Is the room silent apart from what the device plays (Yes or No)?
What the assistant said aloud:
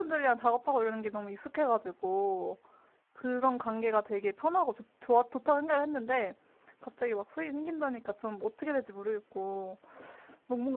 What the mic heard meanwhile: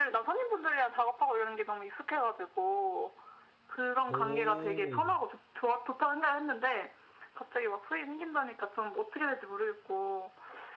No